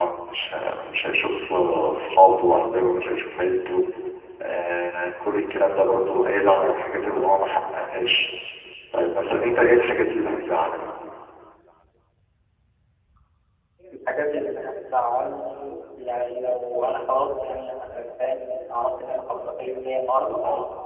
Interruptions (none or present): none